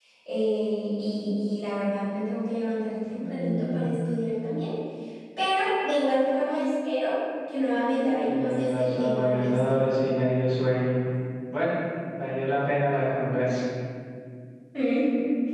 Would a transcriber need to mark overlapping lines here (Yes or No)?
Yes